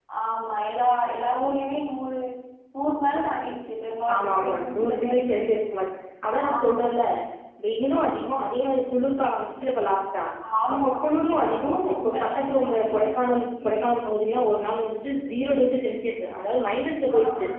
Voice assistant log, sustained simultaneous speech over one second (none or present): present